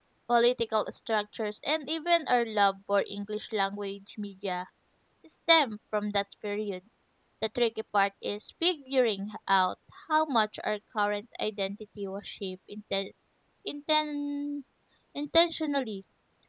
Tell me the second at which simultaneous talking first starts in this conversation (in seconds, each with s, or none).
none